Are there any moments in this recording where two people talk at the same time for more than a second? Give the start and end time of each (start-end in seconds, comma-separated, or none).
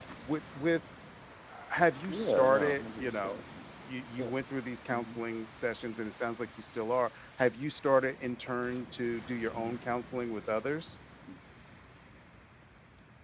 2.1-3.4